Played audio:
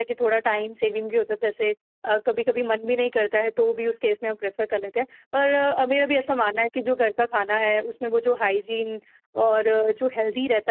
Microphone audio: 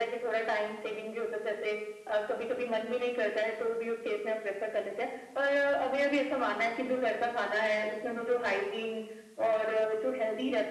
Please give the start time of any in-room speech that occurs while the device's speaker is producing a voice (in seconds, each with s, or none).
none